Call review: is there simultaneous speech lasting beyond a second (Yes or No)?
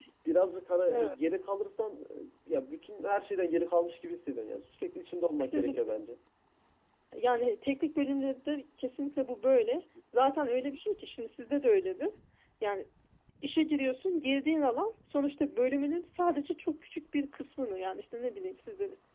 No